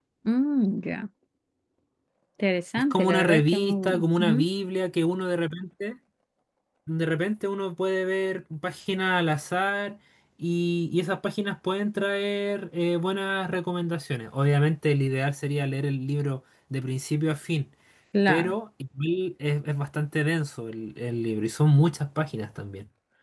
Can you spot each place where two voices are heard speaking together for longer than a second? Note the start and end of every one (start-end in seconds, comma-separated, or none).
2.9-4.5